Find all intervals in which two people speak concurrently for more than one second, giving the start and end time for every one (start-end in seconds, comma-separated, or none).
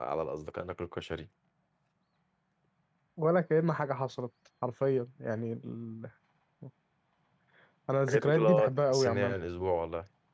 8.1-9.3